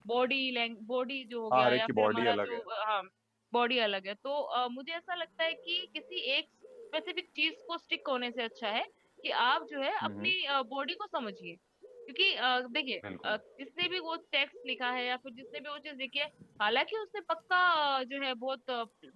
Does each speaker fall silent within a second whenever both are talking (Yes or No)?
No